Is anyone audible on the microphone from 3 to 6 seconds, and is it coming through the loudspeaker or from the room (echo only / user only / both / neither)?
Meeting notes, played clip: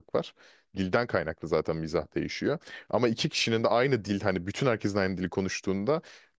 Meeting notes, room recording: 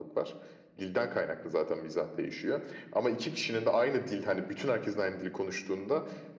echo only